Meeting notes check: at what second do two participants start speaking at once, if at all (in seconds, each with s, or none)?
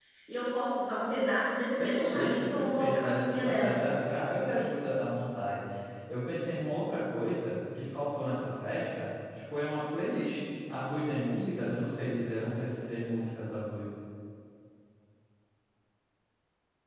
1.8 s